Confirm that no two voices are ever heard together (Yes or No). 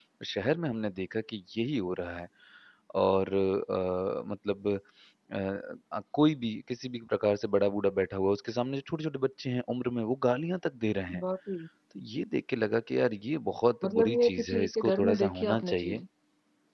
No